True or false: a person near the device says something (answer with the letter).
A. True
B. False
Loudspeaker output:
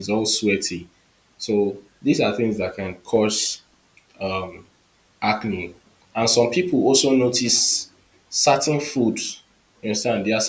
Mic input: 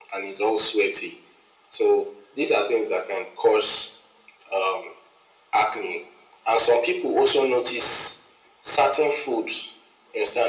B